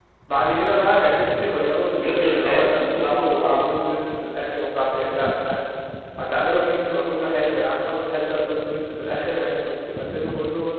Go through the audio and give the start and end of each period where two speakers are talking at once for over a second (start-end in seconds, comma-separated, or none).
2.0-3.6